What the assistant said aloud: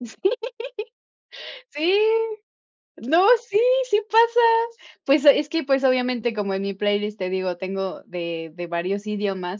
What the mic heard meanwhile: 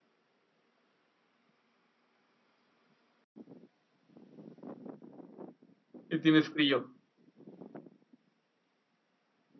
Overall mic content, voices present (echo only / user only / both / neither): user only